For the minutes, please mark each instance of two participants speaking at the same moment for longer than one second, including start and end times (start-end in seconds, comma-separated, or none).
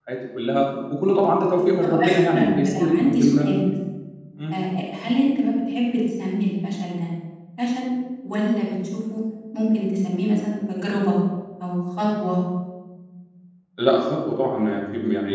1.8-3.5